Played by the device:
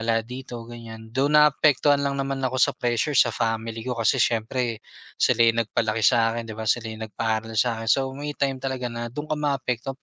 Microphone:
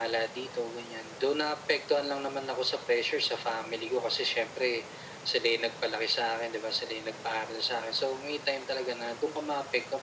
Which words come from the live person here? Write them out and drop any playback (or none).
none